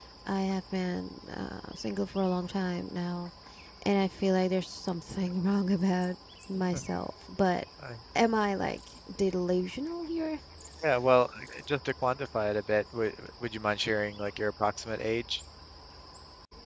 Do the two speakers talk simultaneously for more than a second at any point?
No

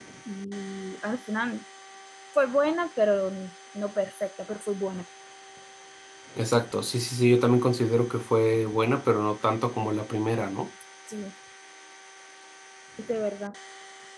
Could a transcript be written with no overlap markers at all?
Yes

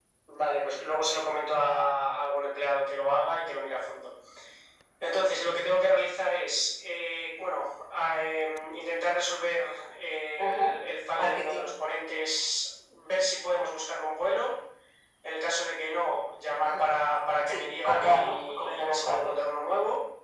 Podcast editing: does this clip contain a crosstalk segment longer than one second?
Yes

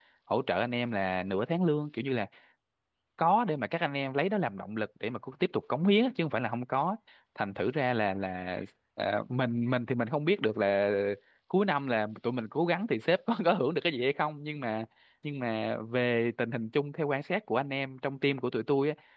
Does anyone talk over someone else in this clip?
No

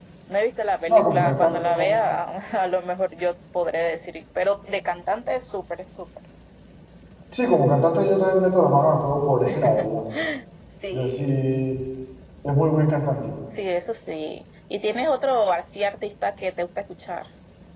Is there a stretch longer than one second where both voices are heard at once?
Yes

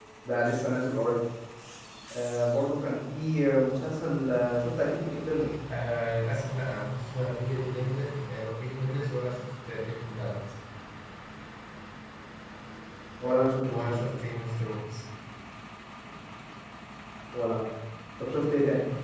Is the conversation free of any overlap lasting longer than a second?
Yes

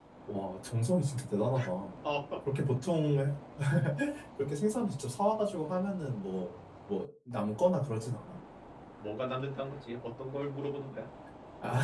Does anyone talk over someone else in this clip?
No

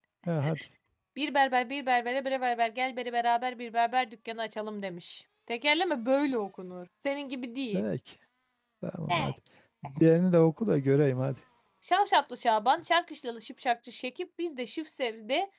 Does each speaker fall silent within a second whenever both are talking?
Yes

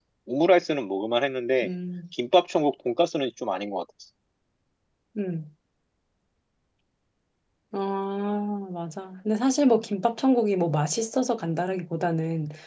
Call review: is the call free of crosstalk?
Yes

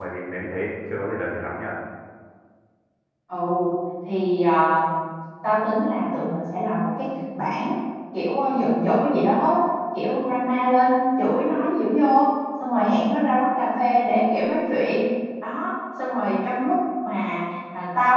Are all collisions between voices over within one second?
Yes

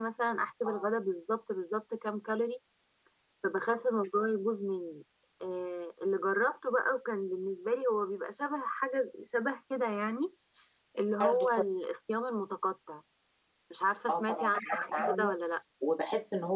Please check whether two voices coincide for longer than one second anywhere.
Yes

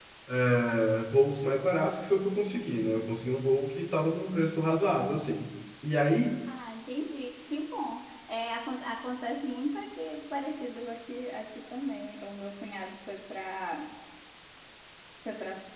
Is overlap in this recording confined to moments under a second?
Yes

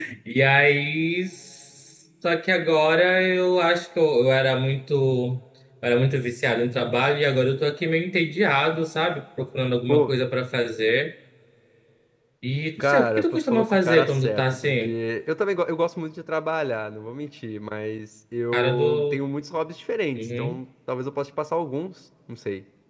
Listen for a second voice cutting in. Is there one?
Yes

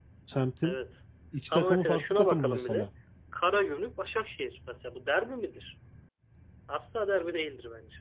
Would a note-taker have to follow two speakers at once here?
Yes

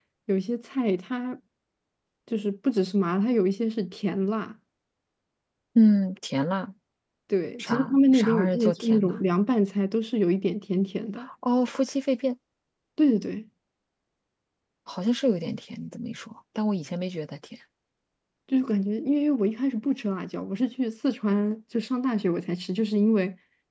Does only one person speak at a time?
No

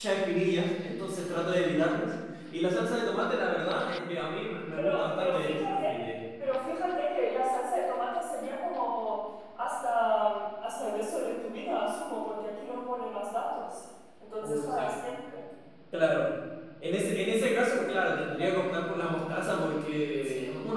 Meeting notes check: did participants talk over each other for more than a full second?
Yes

